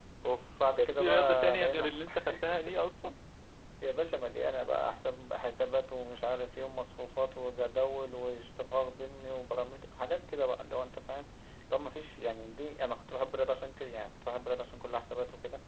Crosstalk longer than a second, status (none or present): present